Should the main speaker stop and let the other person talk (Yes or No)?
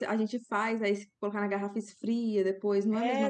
Yes